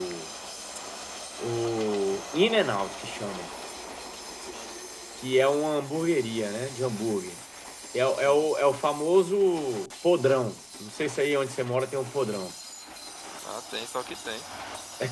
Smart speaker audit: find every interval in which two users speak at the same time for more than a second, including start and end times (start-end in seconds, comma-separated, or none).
none